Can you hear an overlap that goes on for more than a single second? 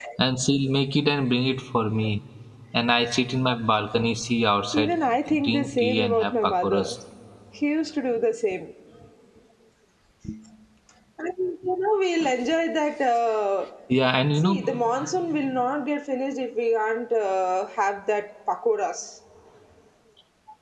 Yes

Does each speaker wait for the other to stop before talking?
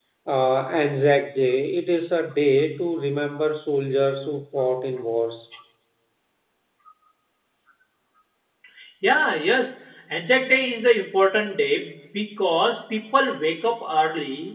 Yes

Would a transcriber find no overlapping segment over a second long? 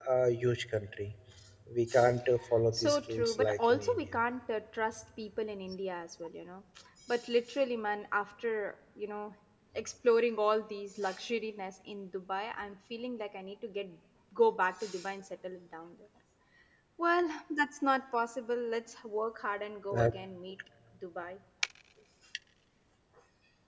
No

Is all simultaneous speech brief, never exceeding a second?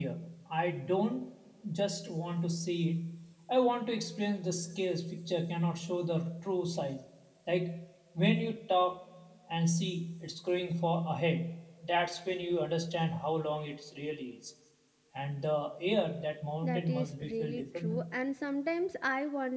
No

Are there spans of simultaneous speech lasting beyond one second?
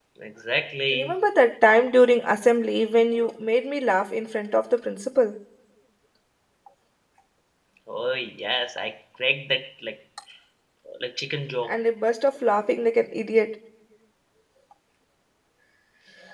No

